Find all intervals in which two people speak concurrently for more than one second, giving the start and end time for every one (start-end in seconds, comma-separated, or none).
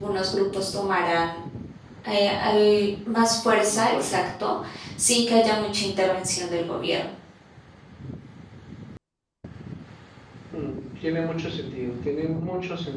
none